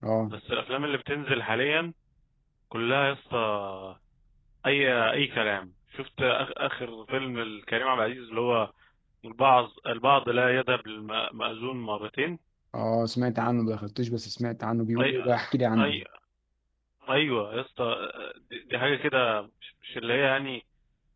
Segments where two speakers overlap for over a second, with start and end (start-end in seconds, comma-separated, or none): none